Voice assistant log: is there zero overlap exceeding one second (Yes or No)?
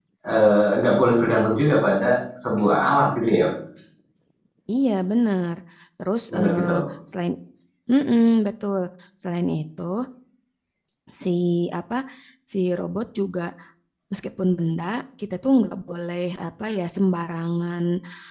Yes